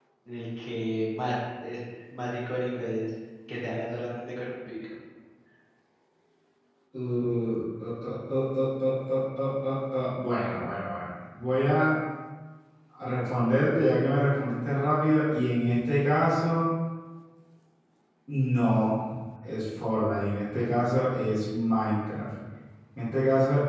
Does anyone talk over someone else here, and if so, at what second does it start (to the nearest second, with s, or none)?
none